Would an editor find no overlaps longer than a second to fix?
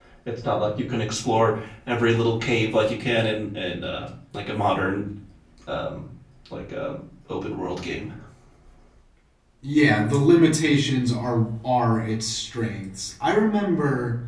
Yes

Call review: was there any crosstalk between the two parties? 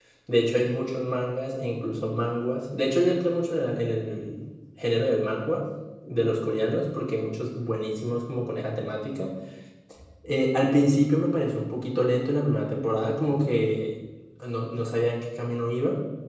No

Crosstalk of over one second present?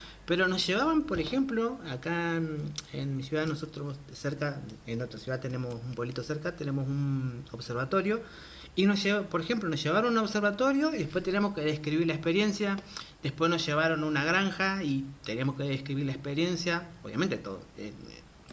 No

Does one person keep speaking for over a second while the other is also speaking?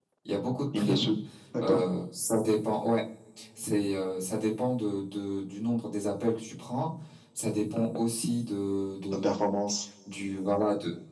No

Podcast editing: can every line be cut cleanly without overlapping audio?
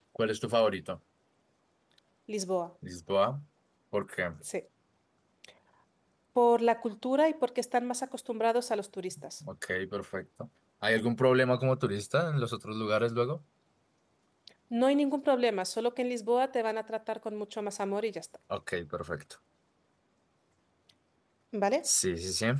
Yes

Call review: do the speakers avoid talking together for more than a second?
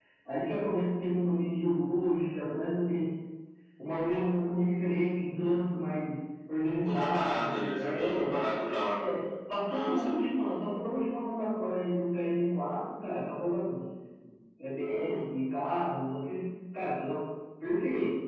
No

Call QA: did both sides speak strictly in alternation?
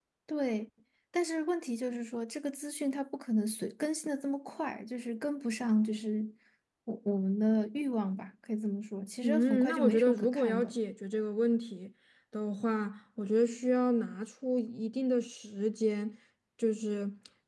No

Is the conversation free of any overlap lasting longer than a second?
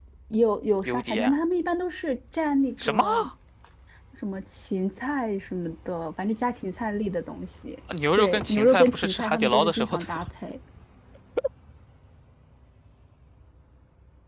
No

